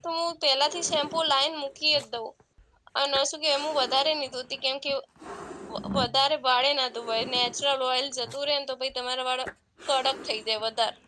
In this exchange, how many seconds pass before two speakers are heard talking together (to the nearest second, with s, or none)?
none